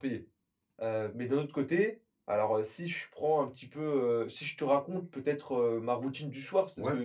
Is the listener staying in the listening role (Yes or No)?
Yes